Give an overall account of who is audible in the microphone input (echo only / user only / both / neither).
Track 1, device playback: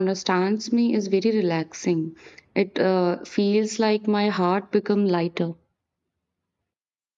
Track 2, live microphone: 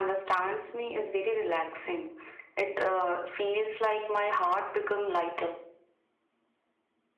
echo only